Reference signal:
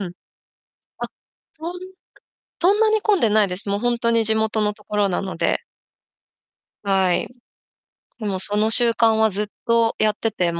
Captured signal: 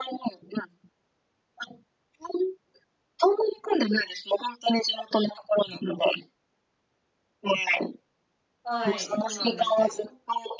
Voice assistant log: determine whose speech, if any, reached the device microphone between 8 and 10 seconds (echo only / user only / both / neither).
both